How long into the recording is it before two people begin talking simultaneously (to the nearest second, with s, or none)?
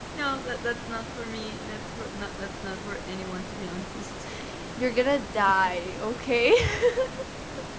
none